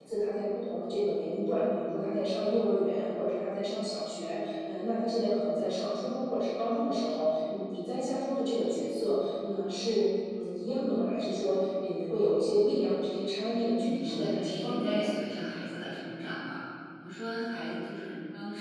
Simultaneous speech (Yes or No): Yes